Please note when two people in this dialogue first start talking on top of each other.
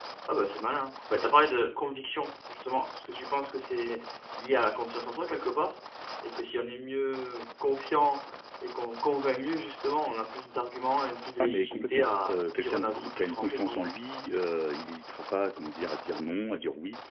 11.4 s

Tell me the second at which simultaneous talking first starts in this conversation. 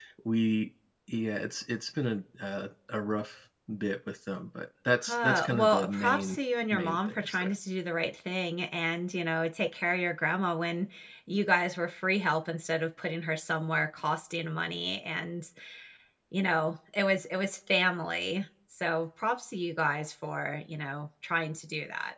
5.0 s

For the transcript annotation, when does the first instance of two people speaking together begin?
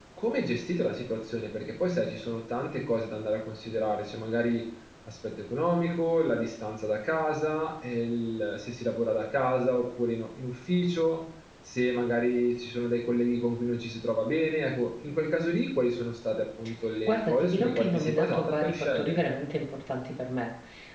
17.1 s

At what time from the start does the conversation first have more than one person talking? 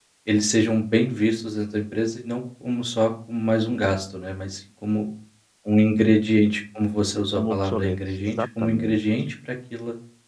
7.3 s

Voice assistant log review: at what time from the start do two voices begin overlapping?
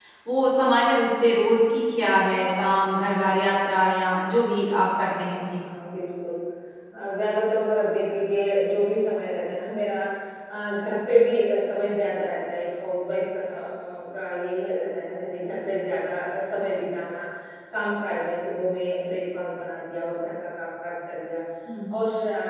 none

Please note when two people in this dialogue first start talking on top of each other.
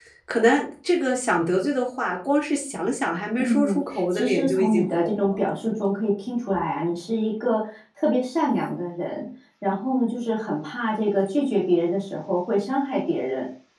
3.4 s

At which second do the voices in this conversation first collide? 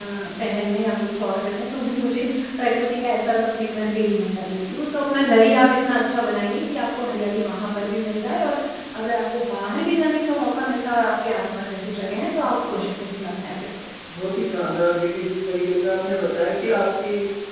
none

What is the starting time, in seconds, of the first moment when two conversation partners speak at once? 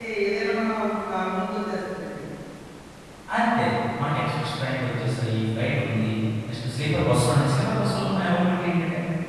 none

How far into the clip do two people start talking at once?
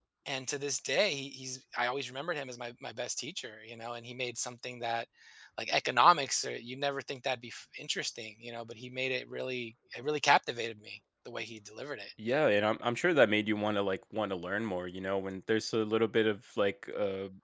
none

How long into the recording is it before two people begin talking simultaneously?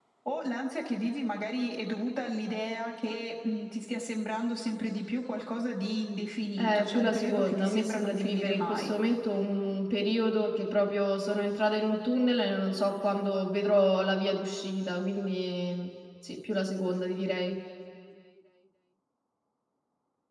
6.6 s

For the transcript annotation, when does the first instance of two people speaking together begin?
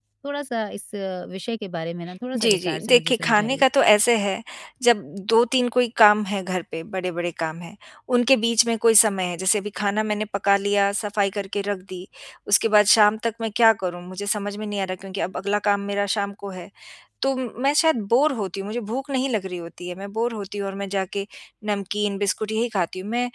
2.3 s

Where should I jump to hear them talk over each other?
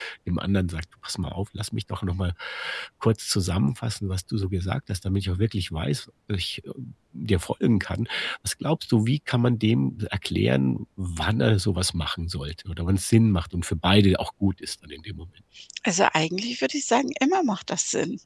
none

